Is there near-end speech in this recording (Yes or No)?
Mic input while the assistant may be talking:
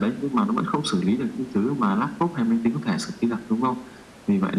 No